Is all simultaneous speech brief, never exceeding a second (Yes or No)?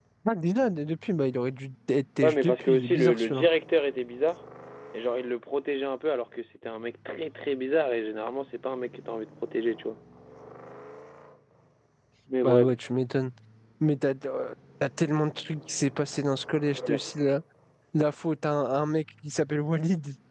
No